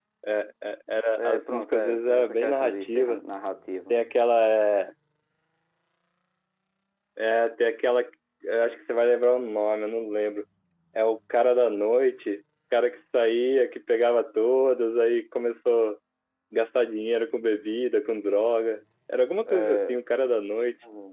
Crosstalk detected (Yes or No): Yes